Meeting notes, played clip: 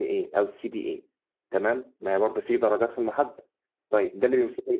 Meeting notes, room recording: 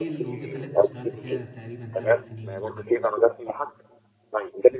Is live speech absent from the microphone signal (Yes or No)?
No